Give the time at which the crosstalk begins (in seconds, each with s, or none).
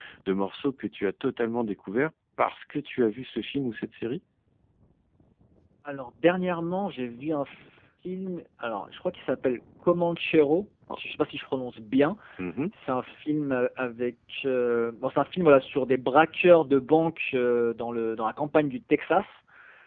none